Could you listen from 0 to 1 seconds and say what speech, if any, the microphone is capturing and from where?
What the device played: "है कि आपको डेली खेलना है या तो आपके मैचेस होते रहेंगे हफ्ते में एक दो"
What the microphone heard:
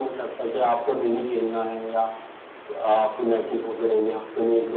echo only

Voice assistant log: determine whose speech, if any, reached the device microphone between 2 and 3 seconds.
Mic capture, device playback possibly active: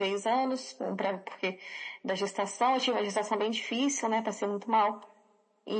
echo only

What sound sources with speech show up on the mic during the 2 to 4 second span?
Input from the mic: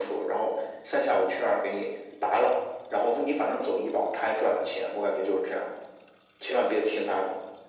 echo only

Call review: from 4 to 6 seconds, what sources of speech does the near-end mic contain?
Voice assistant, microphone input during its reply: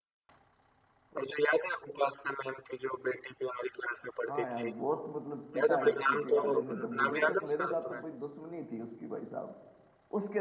both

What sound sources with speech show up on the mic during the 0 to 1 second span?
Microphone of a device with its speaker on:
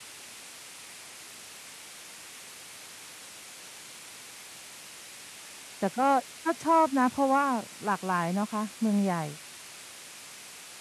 neither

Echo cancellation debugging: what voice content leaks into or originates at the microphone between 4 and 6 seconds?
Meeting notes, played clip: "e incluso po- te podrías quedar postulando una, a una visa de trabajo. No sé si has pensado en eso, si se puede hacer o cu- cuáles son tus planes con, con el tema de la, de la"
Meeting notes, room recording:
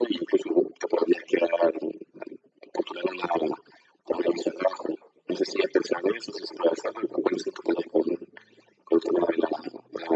echo only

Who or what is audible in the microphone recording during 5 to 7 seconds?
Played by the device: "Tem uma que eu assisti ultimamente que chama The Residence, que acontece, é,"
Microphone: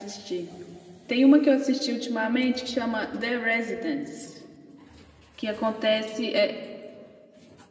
echo only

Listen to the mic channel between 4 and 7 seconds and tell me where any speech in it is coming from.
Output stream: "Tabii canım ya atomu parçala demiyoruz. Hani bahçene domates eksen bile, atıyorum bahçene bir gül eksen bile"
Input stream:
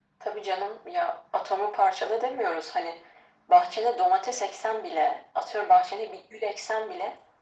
echo only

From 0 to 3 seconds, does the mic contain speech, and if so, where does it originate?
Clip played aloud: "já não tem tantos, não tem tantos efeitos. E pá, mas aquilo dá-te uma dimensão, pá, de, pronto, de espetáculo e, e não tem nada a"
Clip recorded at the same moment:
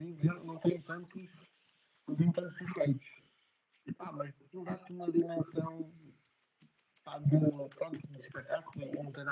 echo only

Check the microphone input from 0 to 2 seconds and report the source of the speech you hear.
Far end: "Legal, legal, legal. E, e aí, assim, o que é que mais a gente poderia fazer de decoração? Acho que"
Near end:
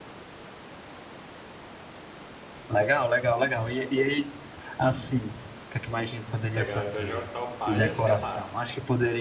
neither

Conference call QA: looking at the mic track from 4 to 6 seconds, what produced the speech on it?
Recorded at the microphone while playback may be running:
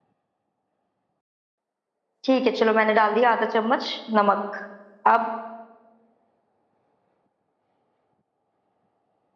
user only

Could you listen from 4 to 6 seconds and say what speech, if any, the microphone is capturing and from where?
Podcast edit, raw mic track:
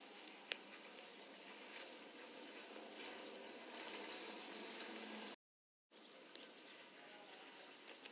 neither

